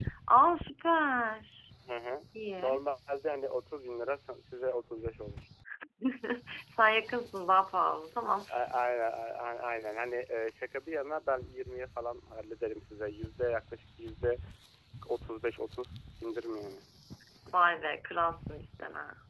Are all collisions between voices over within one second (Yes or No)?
Yes